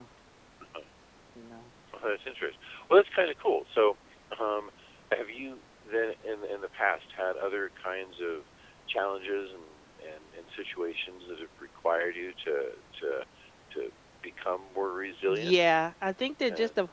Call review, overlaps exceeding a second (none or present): none